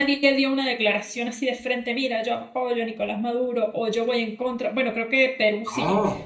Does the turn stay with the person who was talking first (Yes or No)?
Yes